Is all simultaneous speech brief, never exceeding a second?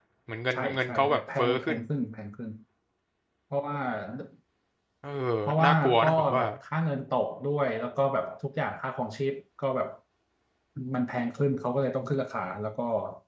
No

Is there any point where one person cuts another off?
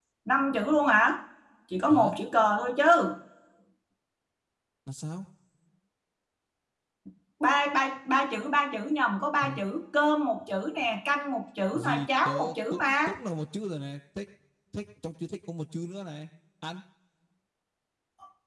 Yes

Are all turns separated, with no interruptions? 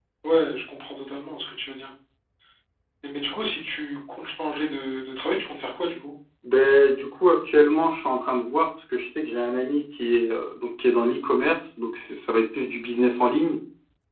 Yes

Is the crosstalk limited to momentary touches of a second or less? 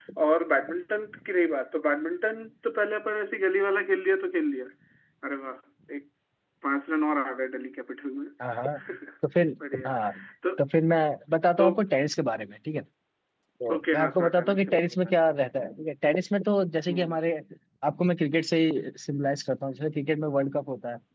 No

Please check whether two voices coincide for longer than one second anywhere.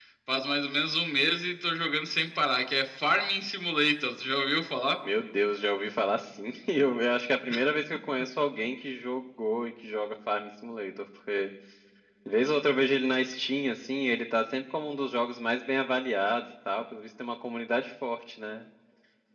No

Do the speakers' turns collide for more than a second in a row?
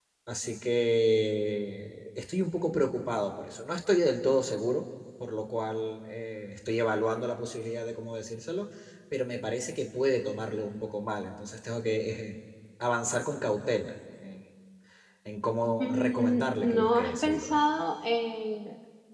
Yes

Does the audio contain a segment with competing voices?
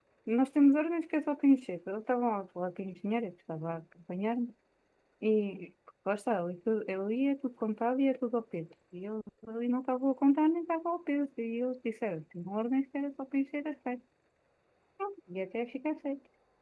No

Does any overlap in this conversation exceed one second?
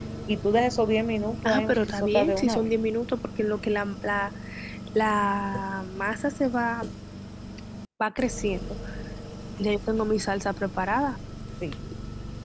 Yes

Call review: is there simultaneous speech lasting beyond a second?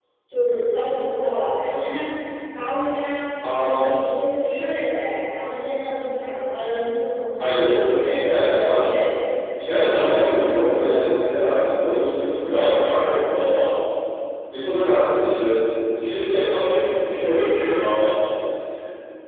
Yes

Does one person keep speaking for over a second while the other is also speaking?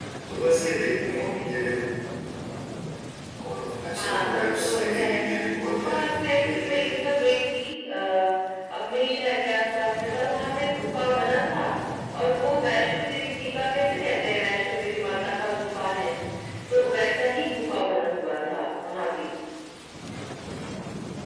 Yes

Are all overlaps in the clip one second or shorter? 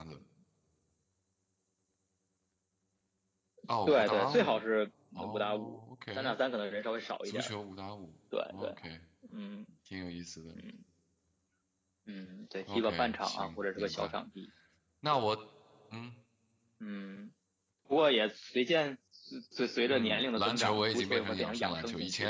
No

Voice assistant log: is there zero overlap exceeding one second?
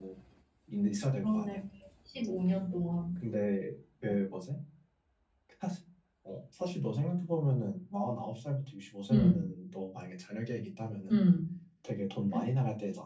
Yes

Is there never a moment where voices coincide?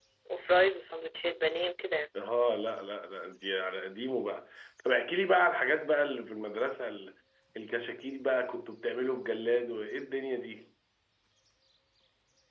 Yes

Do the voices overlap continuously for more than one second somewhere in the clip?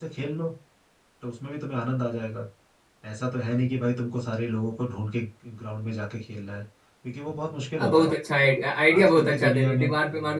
Yes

